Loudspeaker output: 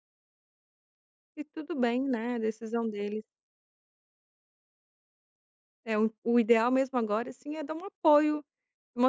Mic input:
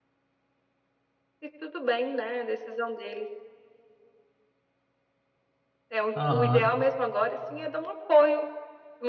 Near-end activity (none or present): present